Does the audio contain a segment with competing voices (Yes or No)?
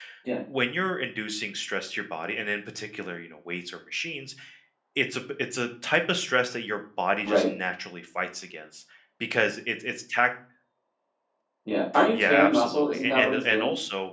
Yes